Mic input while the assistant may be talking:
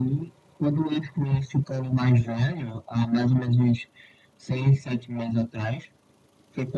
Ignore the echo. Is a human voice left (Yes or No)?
No